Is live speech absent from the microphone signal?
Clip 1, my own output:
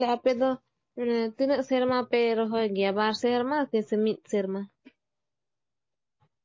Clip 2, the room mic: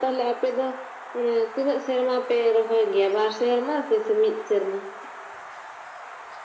Yes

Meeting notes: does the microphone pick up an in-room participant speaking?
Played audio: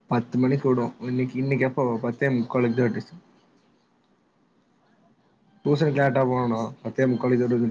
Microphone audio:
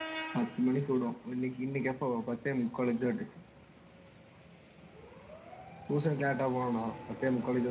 No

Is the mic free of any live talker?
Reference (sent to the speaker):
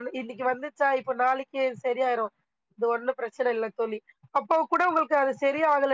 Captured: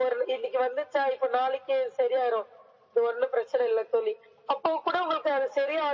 Yes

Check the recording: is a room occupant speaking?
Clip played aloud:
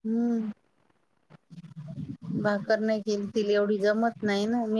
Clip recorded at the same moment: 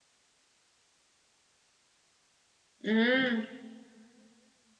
Yes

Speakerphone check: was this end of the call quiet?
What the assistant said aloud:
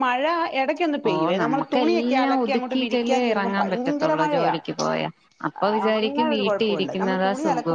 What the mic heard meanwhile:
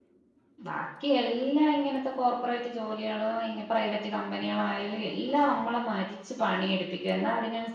No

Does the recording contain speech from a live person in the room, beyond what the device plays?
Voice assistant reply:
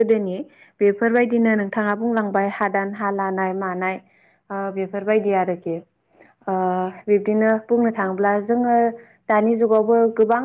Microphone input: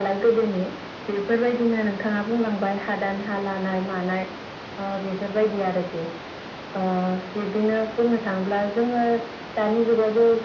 No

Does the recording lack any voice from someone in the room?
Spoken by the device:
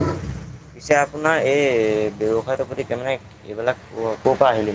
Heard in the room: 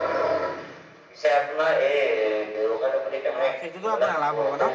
No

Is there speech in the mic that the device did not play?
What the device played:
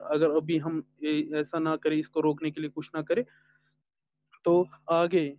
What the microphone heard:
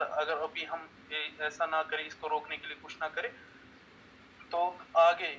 No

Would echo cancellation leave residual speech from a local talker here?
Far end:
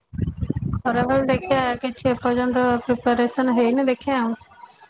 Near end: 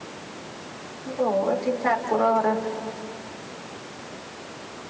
Yes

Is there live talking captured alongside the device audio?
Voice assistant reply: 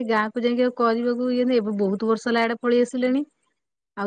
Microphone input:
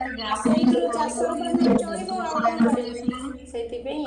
Yes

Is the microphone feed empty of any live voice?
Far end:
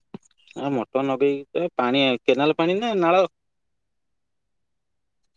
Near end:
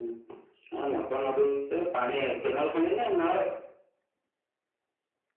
Yes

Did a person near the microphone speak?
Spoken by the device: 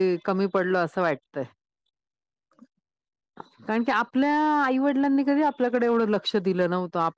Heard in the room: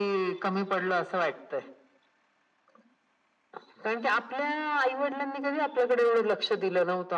No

